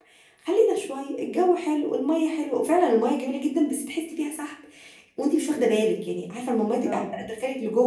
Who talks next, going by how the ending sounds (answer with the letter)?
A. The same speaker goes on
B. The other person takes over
A